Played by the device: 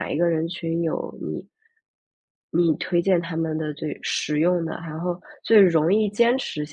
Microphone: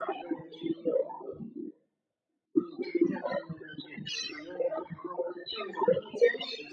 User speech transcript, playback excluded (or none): none